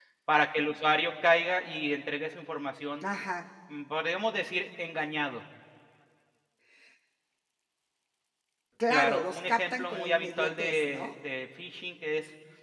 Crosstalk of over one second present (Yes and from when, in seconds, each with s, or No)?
Yes, from 8.9 s